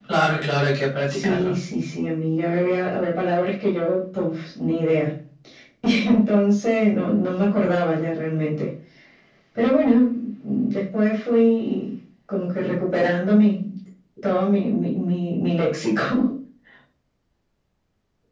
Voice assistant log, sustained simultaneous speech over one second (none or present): none